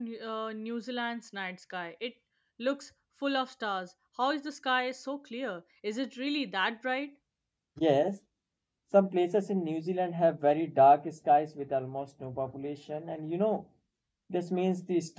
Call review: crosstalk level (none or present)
none